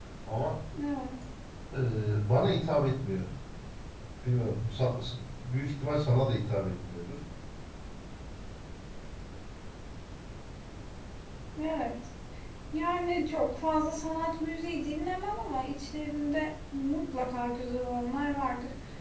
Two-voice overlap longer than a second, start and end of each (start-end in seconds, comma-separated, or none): none